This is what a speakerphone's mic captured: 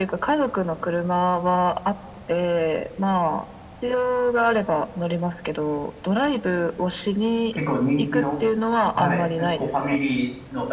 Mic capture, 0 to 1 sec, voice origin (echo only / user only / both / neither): echo only